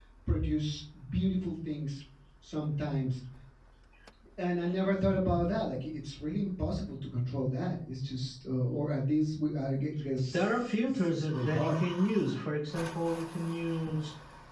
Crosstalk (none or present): present